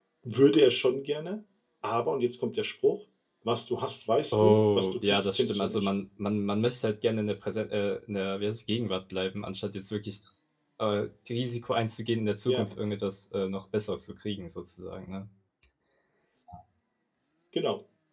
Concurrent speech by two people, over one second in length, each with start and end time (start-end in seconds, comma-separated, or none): 4.3-5.9